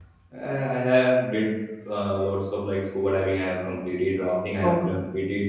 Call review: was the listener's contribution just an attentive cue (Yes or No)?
Yes